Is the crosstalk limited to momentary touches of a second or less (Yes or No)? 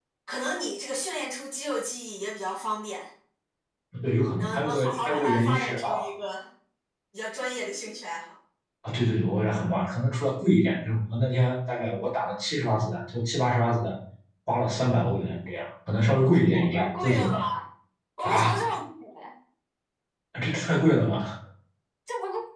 No